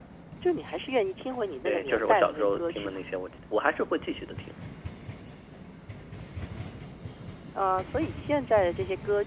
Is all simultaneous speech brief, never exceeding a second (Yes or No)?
No